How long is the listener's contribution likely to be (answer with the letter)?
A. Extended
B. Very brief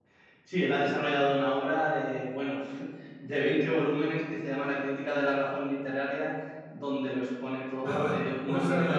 A